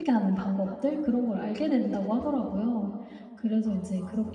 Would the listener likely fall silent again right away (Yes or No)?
Yes